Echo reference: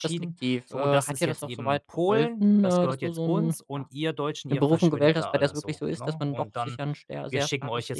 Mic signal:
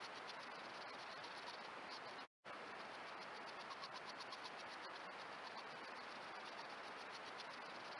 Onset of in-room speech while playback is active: none

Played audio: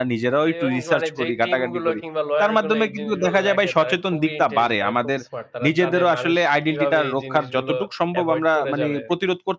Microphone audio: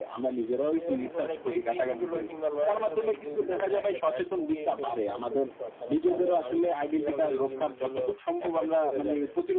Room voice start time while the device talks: none

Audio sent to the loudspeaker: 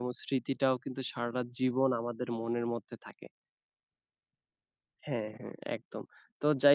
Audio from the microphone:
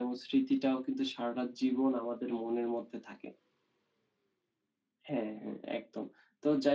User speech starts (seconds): none

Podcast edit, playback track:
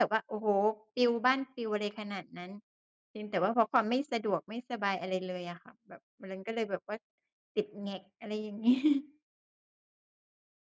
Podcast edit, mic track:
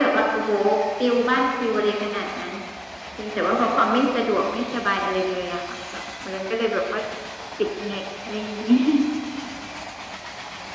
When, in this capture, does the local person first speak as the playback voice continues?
none

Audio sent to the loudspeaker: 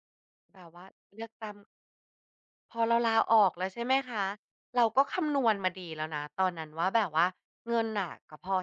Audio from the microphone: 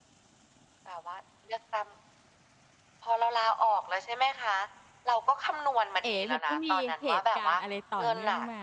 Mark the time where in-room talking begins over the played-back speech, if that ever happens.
6 s

